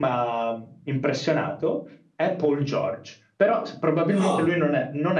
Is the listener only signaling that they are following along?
Yes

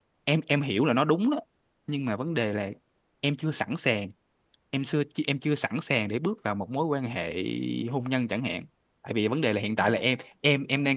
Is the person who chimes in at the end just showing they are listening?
Yes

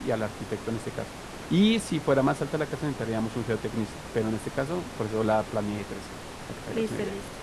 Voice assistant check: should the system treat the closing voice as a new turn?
Yes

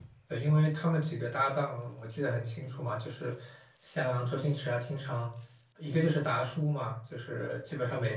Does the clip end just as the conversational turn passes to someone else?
No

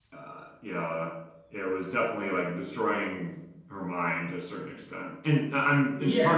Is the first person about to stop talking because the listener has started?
No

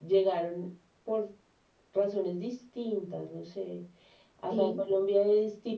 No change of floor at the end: Yes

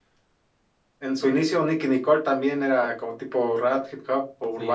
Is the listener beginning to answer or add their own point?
Yes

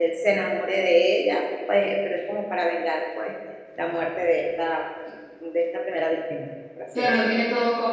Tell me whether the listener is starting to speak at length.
Yes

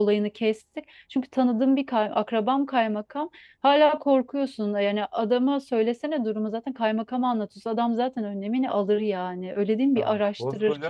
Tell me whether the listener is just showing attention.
No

